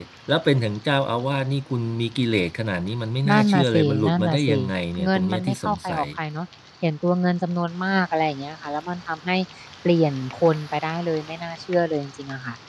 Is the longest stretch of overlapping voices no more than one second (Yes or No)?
No